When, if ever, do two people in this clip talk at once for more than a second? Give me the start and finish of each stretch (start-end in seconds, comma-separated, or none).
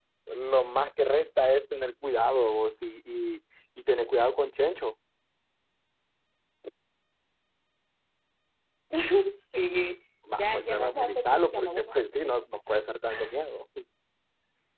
10.4-12.3